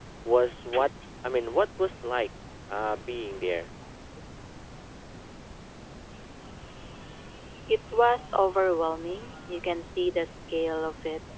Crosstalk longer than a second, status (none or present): none